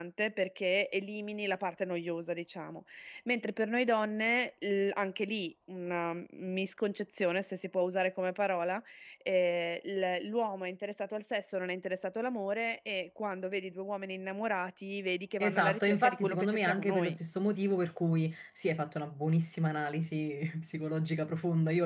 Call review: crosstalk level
present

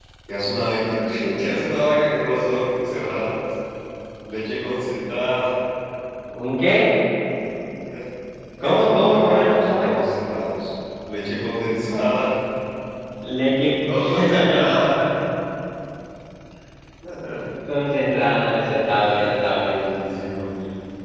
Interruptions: present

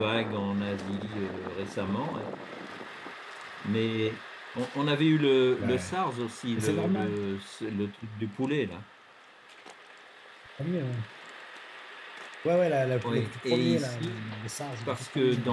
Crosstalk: present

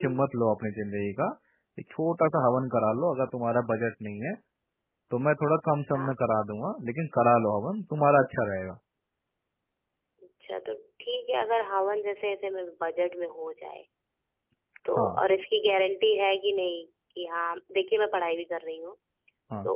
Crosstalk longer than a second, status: none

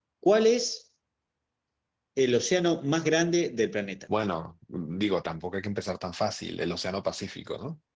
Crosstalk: none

